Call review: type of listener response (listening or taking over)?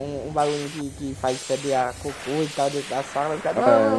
taking over